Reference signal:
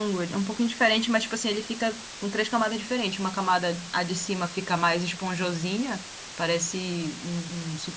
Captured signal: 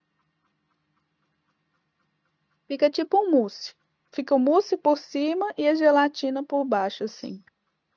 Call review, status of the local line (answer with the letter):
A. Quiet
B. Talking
B